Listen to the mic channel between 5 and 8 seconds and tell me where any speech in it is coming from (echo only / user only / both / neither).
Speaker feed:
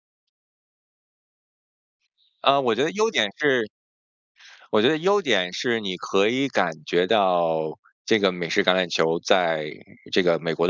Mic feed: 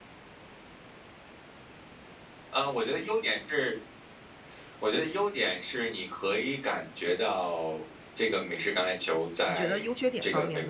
echo only